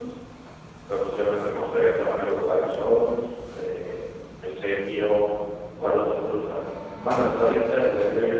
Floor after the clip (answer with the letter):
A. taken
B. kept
A